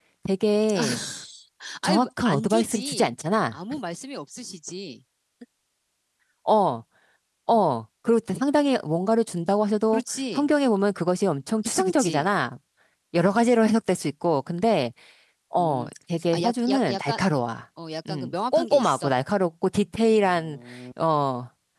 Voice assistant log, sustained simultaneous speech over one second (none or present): present